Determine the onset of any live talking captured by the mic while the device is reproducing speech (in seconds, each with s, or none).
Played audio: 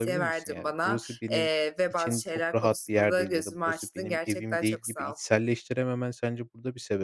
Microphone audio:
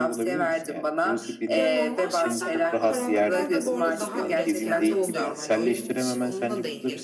1.5 s